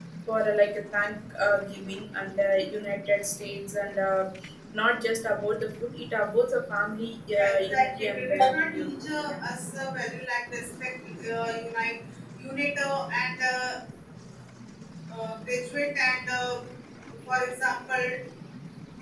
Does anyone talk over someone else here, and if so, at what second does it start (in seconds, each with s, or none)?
7.3 s